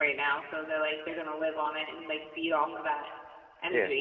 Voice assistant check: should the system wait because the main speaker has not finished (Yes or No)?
No